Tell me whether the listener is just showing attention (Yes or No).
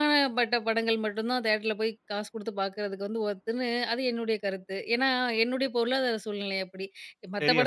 Yes